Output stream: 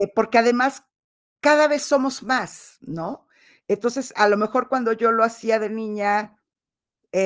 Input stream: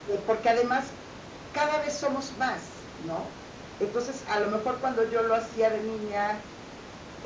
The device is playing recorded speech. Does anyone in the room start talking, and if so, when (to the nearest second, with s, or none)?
none